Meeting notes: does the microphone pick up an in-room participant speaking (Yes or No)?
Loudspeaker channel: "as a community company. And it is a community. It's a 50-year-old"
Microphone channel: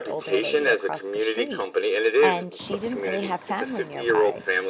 Yes